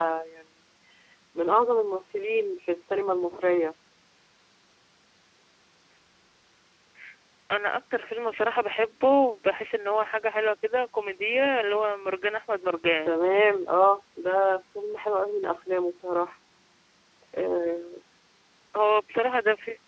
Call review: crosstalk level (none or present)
none